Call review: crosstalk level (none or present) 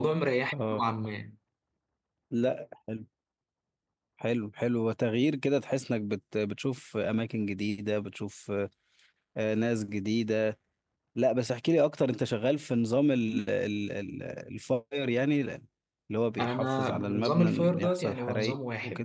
present